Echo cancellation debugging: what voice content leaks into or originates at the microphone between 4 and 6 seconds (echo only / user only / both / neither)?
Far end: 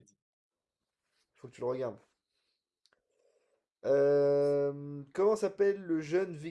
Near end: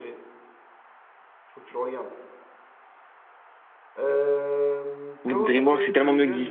both